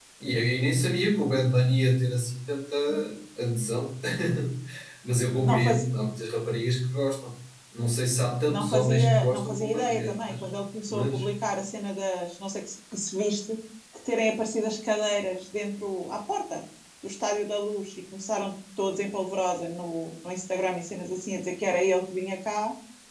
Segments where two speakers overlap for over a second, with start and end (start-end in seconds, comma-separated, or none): 8.5-10.4